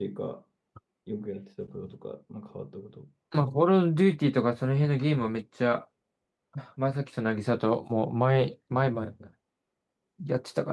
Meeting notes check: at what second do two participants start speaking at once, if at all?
none

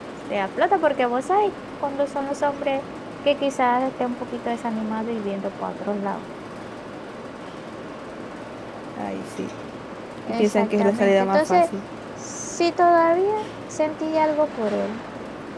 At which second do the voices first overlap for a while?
10.3 s

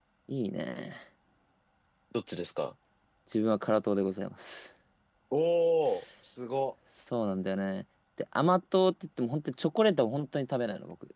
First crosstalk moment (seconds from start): none

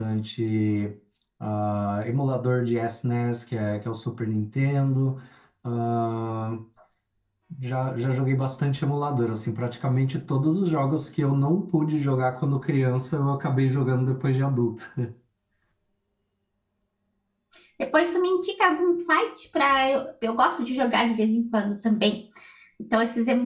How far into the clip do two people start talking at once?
none

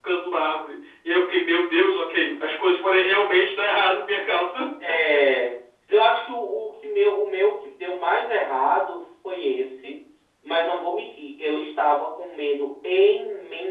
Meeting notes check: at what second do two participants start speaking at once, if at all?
none

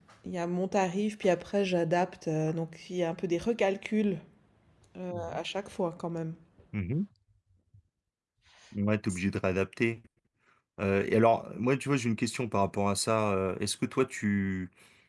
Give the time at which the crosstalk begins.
none

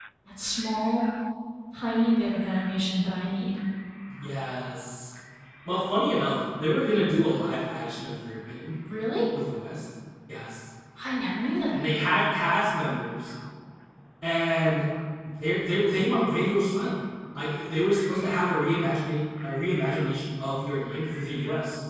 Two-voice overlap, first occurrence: none

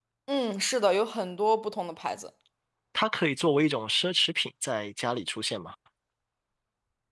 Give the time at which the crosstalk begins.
none

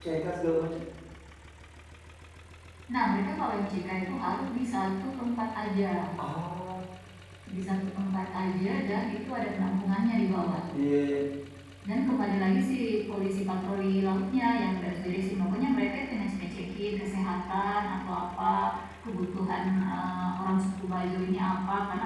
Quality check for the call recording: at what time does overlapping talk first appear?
none

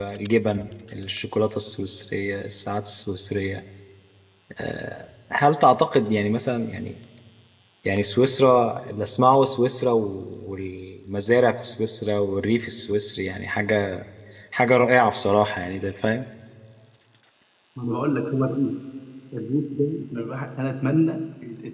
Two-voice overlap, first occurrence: none

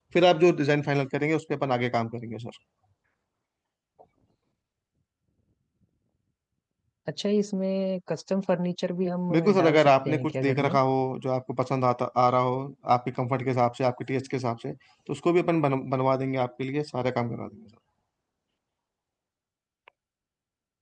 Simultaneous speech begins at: 9.3 s

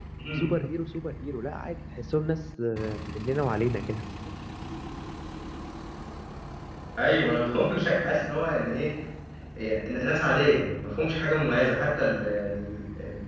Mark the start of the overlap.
none

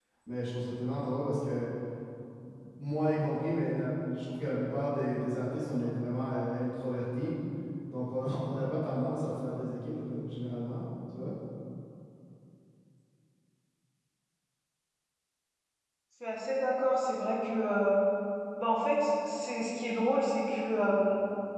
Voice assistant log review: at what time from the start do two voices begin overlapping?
none

